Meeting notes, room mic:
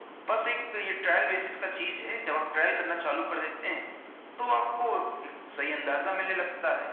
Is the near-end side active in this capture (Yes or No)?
No